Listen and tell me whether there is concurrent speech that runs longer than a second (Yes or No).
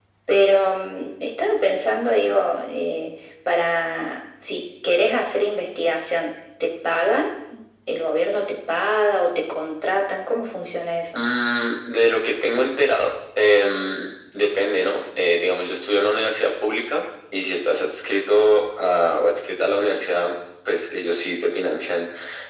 No